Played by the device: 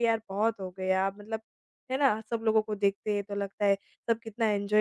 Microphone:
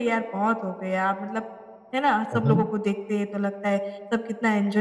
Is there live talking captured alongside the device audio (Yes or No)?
Yes